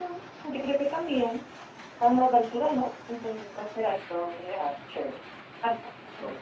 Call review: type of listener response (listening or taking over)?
taking over